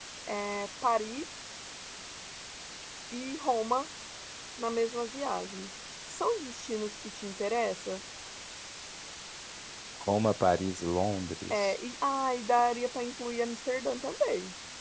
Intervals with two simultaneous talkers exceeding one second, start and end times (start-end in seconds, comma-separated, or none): none